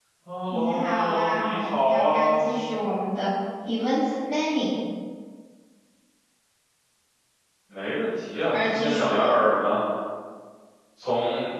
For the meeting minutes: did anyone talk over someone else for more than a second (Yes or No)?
Yes